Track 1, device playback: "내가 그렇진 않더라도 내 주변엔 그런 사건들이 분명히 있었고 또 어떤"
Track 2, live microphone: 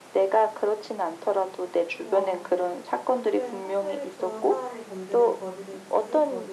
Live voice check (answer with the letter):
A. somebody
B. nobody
A